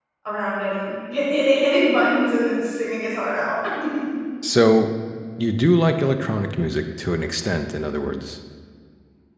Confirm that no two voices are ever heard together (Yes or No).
Yes